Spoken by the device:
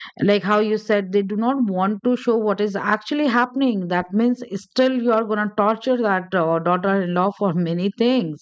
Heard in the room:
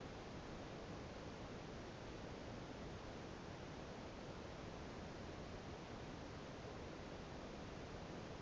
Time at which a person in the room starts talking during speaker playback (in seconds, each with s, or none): none